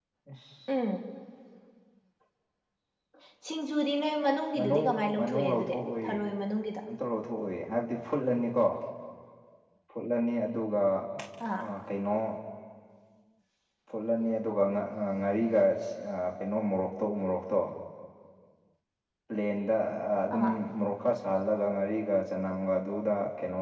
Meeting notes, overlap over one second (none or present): present